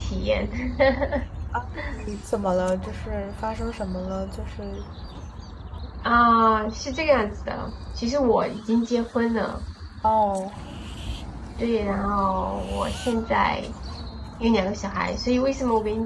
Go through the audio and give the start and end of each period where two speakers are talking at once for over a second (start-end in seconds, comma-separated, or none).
none